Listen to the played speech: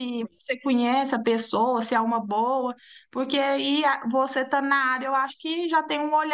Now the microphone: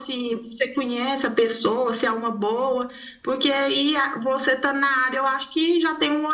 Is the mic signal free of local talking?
Yes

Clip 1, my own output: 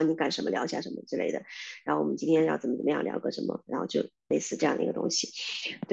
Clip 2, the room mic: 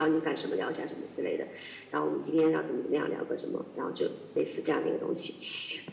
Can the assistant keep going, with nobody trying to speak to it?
Yes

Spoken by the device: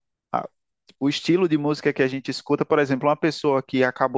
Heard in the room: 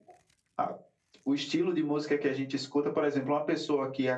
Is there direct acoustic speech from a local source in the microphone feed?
No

